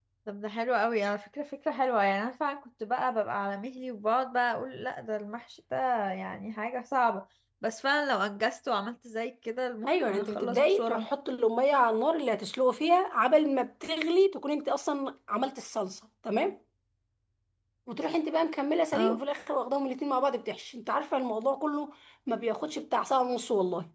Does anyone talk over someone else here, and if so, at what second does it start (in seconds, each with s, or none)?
9.9 s